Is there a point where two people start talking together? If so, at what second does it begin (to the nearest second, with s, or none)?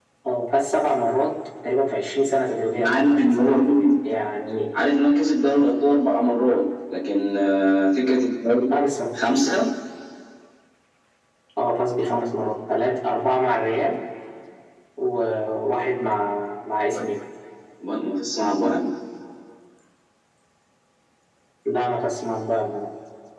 3 s